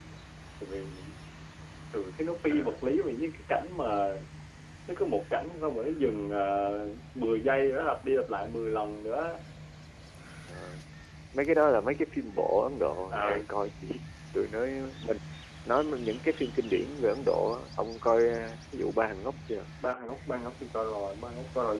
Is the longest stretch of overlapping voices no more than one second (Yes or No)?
Yes